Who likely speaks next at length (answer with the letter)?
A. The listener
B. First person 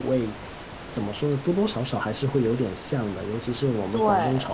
B